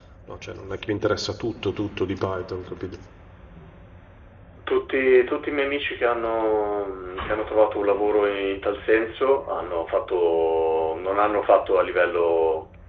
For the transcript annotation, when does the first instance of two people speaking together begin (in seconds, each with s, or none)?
none